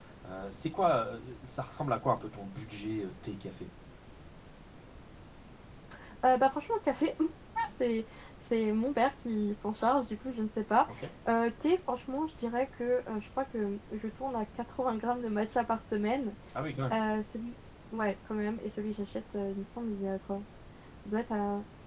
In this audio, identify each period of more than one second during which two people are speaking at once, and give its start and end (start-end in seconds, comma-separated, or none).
none